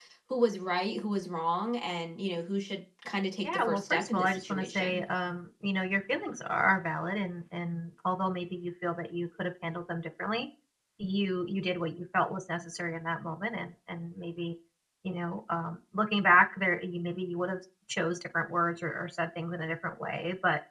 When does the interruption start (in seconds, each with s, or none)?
3.4 s